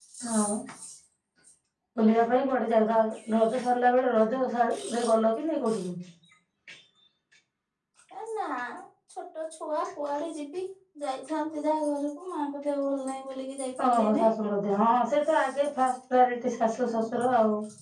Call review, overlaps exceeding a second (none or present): none